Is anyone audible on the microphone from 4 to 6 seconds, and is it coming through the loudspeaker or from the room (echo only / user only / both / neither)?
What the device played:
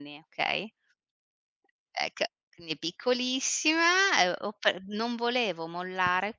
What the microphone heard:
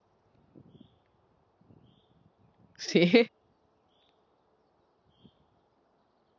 neither